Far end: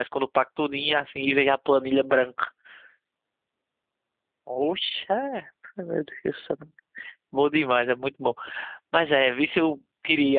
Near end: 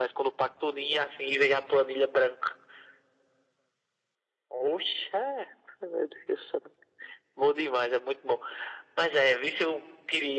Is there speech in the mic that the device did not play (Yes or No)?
No